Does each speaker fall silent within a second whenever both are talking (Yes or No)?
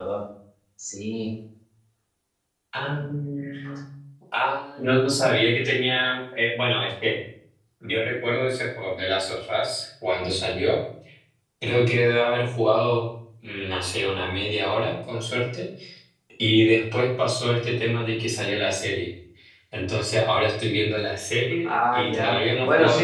No